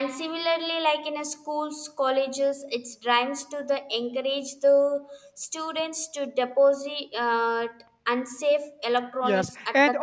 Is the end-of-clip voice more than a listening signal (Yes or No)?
Yes